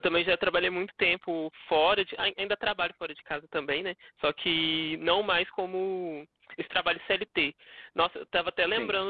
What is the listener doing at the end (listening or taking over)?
listening